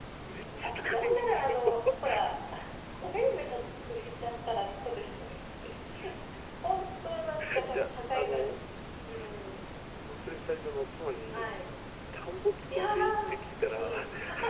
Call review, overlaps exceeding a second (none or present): present